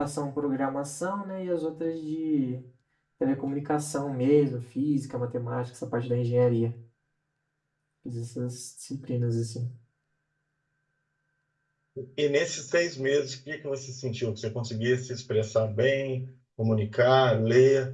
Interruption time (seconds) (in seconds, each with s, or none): none